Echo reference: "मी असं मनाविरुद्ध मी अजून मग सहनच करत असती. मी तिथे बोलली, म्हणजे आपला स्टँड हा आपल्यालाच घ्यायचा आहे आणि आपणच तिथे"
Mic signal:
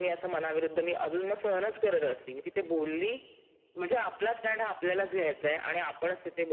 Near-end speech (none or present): none